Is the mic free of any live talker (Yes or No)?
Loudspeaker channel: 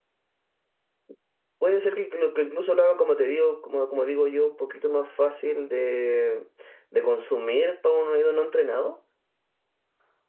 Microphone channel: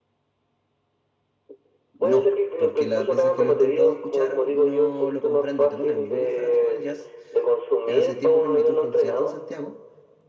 No